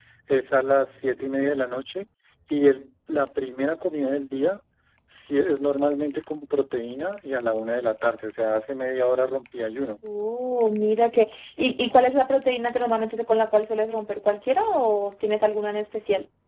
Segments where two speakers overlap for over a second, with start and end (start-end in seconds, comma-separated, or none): none